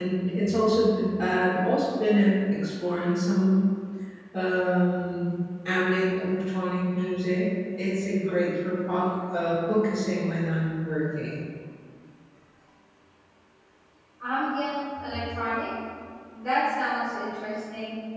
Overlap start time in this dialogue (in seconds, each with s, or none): none